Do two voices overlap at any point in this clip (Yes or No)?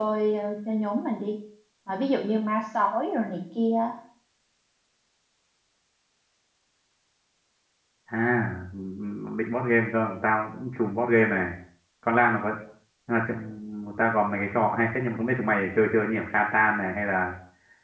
No